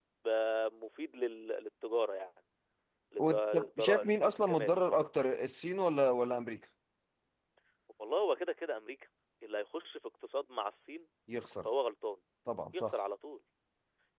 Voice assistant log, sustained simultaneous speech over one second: present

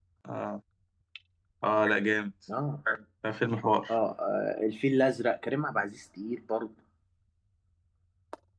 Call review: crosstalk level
none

